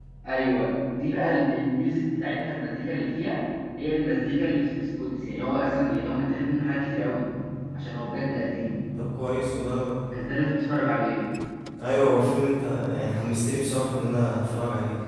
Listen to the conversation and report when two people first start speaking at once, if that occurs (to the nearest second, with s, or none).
none